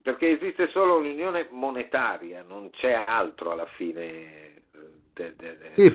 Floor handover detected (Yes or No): Yes